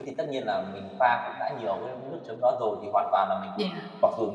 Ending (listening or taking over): listening